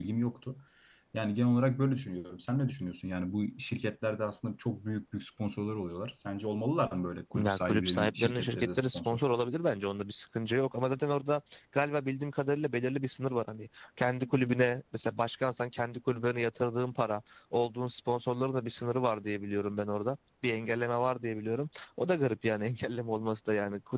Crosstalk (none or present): present